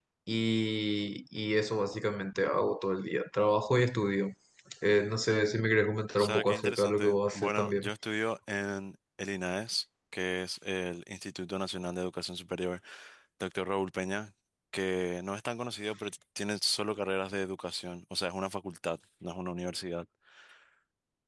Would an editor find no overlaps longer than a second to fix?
No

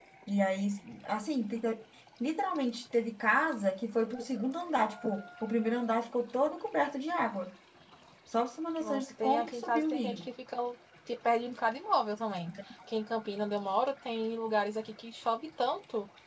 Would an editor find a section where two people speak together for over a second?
Yes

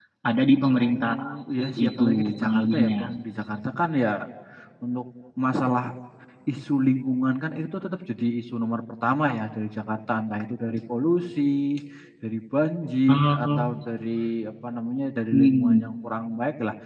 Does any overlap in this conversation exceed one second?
Yes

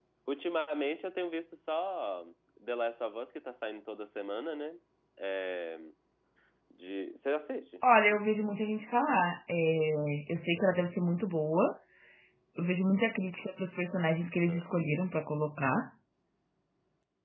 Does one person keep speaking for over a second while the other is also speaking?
No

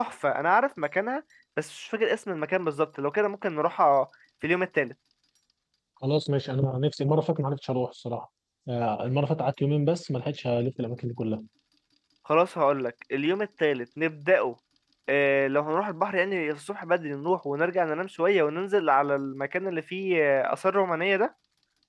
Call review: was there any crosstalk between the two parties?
No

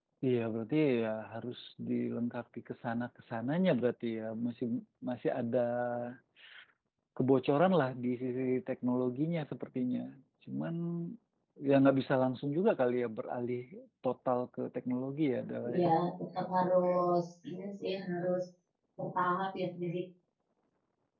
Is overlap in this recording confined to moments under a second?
Yes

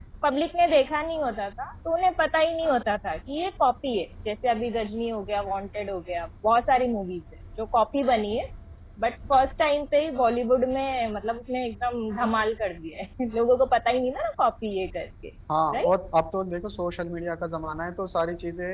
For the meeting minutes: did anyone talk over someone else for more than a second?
No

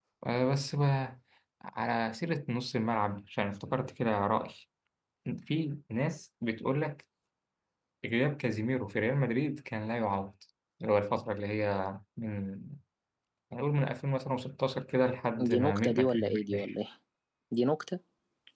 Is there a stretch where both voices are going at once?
Yes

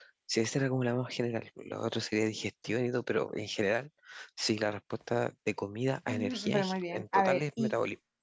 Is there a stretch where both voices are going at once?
Yes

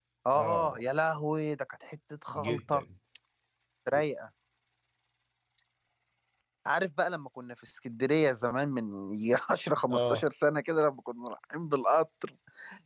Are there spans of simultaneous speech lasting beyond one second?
No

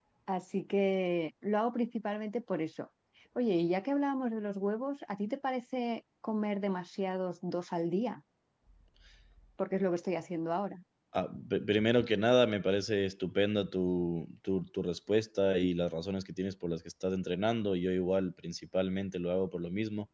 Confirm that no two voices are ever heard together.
Yes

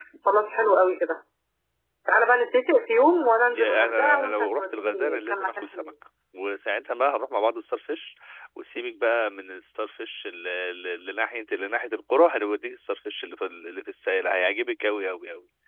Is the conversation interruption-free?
No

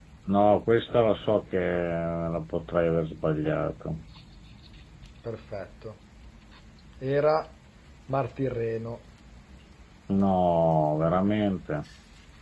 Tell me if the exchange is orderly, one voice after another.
Yes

